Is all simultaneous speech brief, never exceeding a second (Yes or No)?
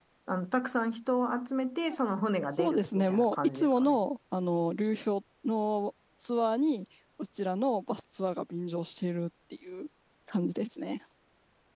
No